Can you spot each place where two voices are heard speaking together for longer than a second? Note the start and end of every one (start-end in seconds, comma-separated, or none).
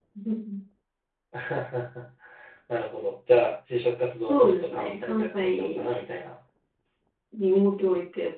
4.3-5.9